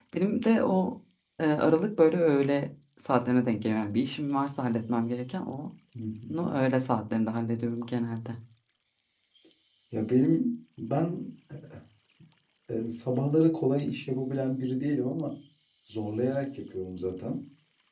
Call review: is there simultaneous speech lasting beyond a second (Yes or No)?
No